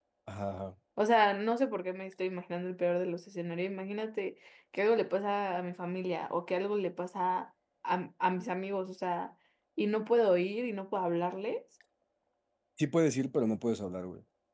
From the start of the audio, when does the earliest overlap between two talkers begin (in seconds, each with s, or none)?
none